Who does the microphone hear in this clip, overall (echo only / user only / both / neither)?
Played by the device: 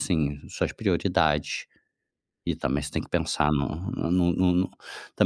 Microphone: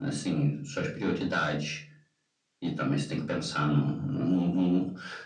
echo only